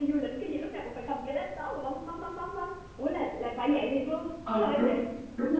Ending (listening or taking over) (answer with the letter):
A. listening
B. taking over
B